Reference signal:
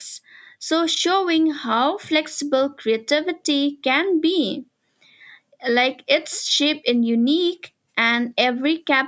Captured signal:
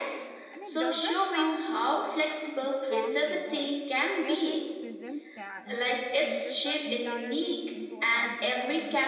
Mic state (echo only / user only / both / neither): both